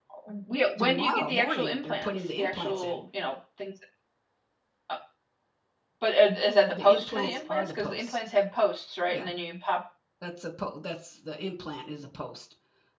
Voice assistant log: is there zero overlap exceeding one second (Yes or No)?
No